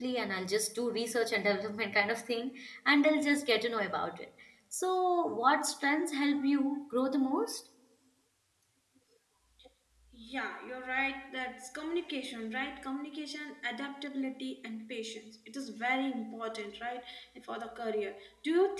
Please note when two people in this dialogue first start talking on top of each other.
none

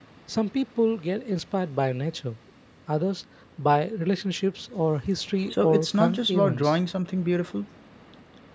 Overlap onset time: 6 s

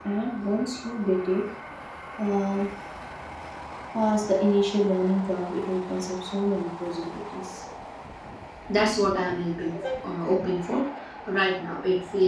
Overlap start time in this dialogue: none

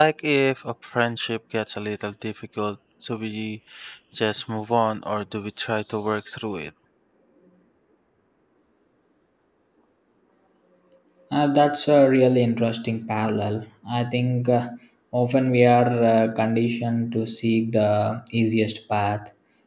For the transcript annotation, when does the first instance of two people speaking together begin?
none

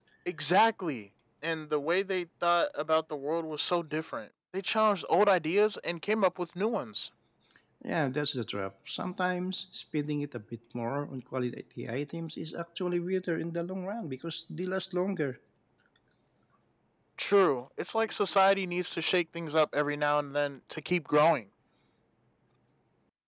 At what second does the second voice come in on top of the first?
none

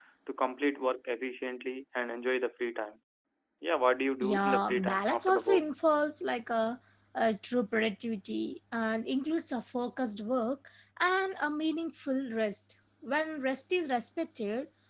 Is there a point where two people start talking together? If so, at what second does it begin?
4 s

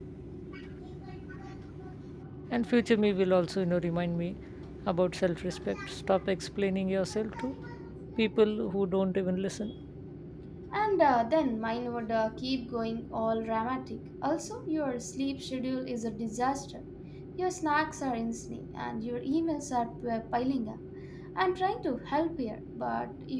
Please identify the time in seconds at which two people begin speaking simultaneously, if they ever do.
none

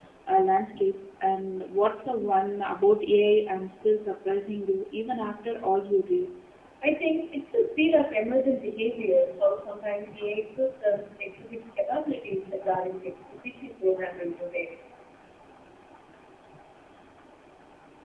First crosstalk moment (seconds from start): none

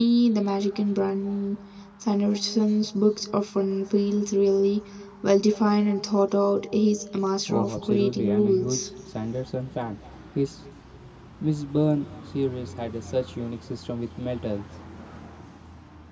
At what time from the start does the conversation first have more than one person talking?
7 s

